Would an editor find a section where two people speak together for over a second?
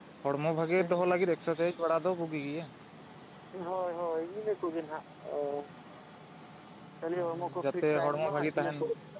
Yes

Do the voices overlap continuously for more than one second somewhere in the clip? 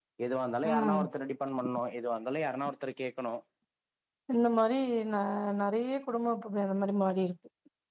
No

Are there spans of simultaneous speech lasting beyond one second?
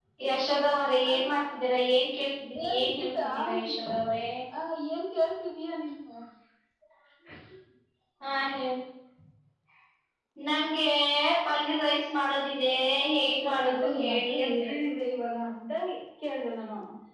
Yes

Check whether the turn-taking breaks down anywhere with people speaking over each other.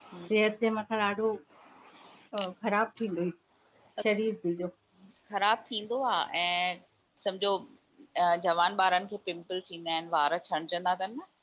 No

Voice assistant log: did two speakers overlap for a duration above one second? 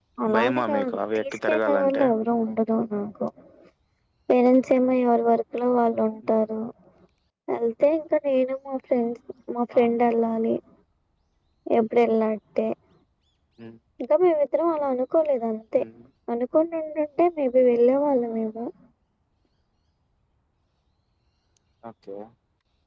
Yes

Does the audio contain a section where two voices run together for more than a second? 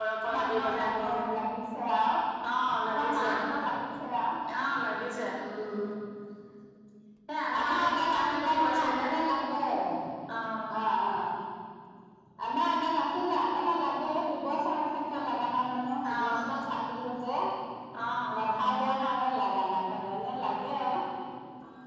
Yes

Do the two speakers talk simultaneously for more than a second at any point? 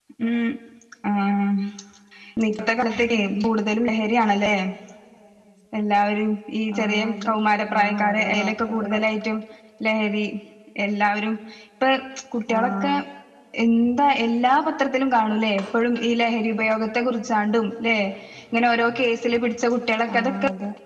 Yes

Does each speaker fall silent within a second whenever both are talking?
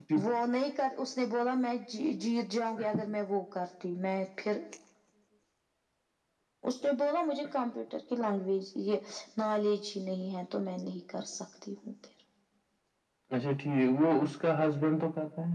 Yes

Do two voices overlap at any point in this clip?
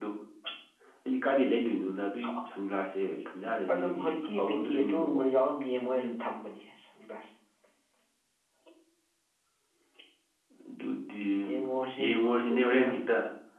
Yes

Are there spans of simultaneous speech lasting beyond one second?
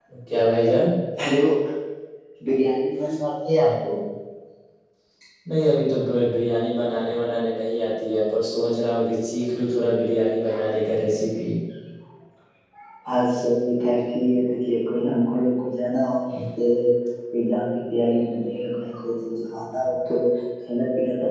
No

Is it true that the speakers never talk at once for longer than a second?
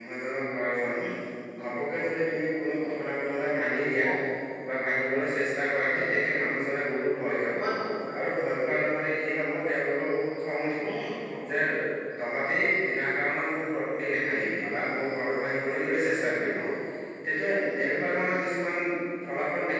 Yes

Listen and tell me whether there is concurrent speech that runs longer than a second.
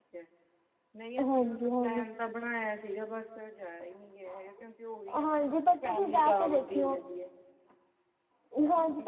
Yes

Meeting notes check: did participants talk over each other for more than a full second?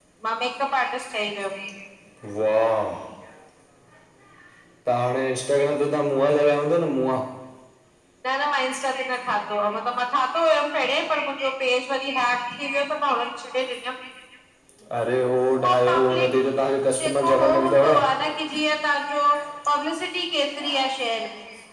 Yes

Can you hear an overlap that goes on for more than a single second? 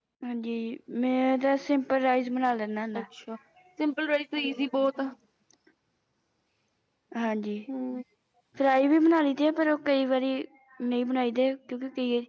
No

